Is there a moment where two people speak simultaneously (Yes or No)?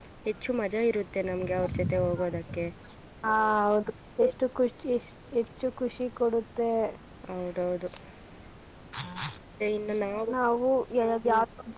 No